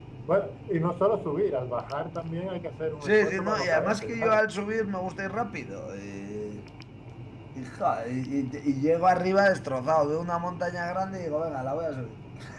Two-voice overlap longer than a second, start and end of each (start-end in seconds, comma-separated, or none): 3.0-4.4